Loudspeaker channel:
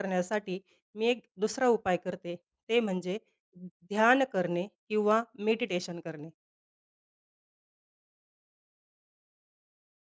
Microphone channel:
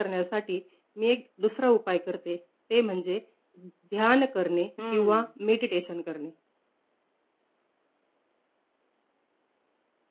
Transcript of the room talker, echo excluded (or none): हं.